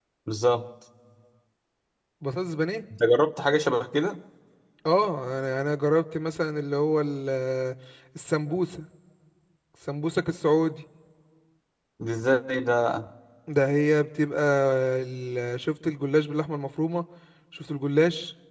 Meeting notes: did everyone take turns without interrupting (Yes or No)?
Yes